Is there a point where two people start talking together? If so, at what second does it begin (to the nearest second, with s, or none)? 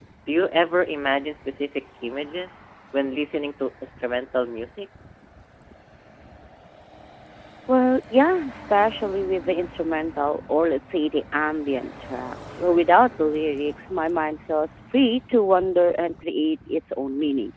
none